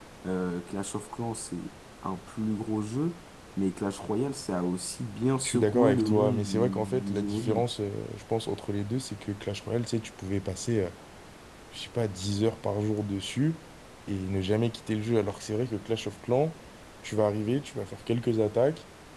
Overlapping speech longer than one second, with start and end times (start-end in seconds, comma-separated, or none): 5.4-7.6